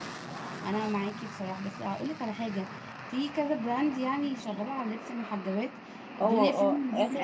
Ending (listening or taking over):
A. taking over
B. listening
A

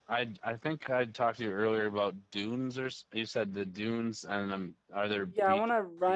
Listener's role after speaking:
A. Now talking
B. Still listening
A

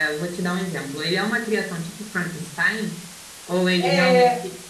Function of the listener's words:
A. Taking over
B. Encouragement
A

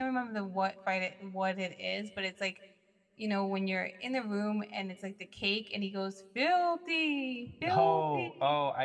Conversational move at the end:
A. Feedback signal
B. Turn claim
B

